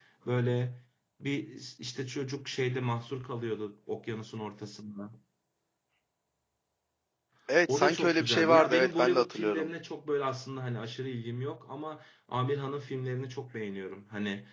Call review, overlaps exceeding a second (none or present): present